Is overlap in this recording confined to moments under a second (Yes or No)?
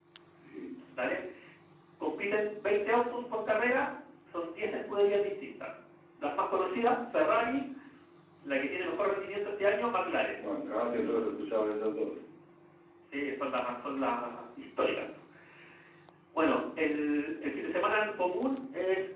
Yes